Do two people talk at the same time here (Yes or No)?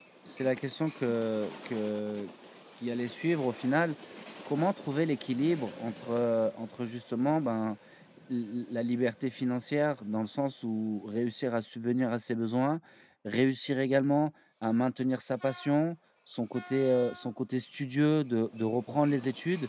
No